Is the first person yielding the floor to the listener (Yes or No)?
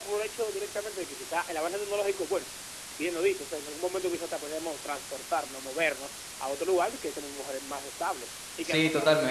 Yes